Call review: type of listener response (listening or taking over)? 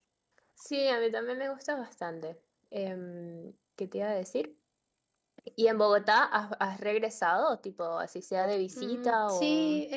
taking over